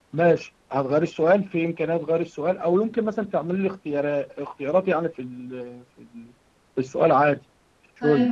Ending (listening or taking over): taking over